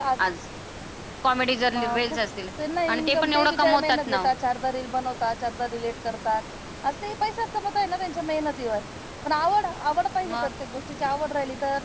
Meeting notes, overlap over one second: present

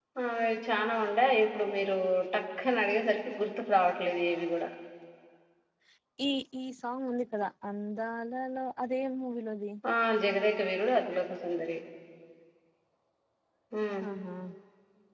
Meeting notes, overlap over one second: none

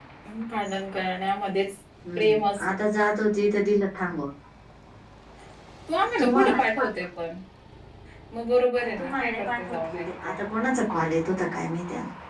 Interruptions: present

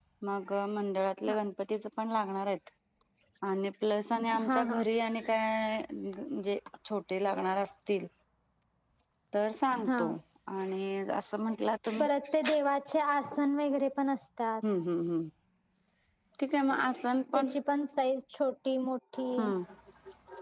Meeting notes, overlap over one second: none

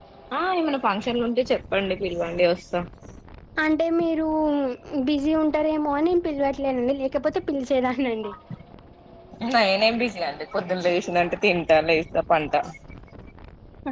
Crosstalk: none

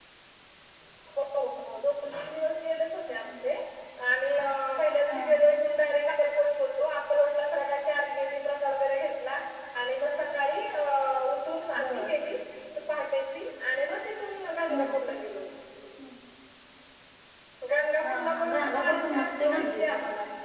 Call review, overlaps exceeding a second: present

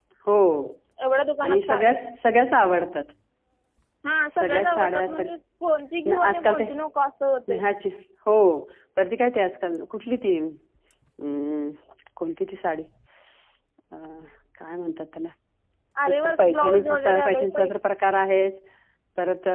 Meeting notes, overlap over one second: present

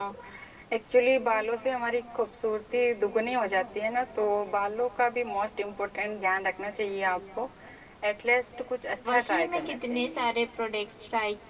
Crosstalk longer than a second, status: present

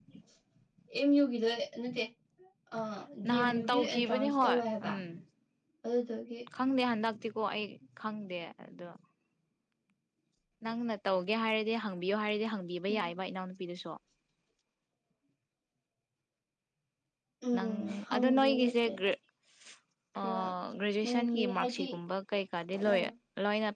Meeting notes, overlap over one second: present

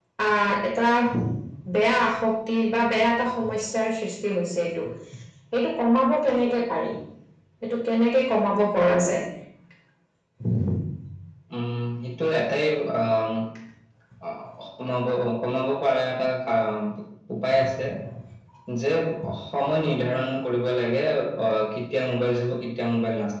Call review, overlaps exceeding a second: none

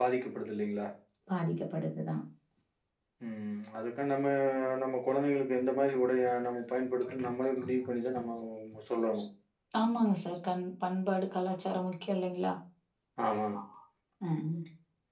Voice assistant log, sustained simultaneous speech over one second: none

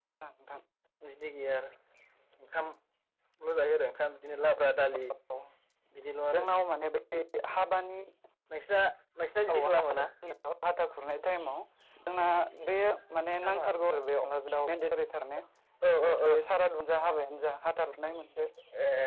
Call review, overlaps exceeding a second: none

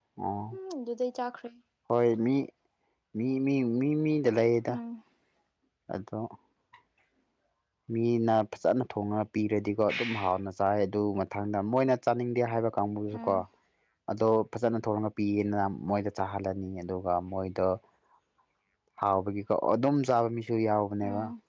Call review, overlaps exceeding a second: none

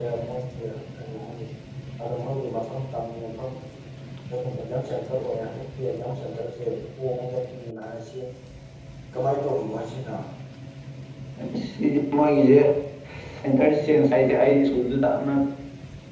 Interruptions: none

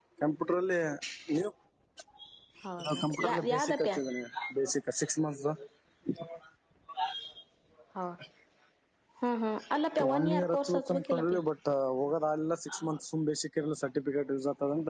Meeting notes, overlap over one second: present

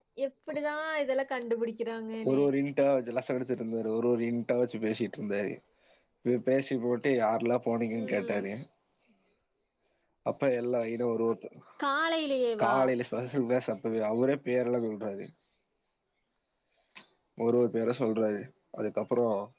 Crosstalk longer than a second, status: none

